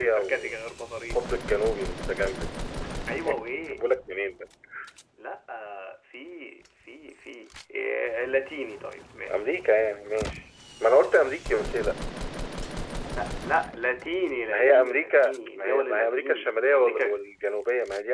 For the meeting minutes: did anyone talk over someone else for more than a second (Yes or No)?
Yes